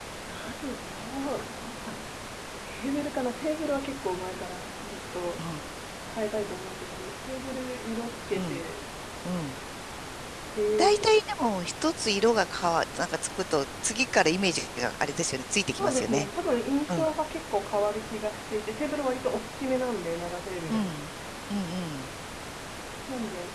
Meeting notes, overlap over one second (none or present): none